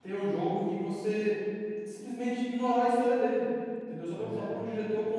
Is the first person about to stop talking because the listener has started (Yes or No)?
No